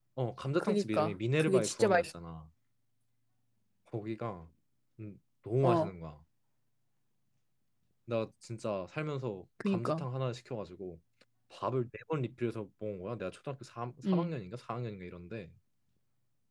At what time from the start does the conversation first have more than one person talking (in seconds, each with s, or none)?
0.6 s